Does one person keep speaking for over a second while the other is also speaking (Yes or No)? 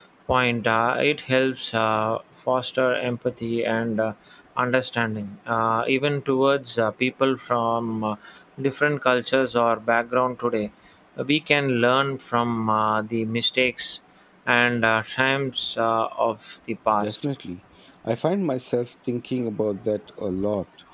No